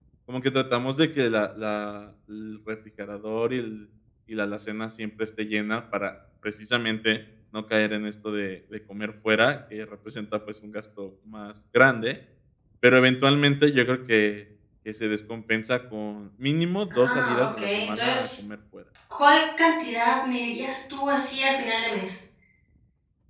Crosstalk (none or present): present